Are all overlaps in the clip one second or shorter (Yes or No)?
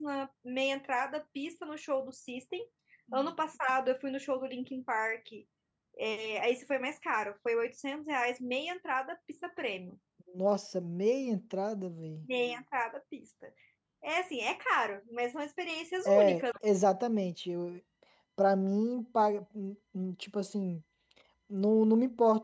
Yes